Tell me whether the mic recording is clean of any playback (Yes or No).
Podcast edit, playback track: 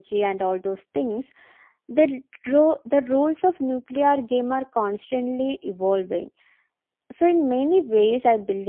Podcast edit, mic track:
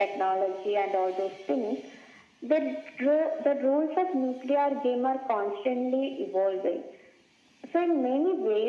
No